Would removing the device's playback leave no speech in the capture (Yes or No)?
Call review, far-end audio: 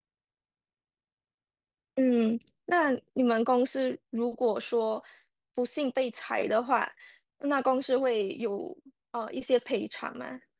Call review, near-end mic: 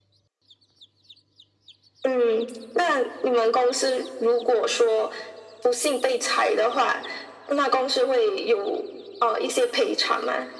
Yes